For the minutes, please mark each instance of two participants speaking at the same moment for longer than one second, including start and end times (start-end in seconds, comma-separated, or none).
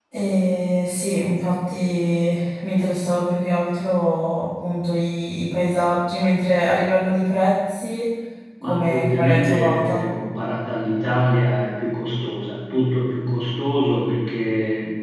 8.6-10.0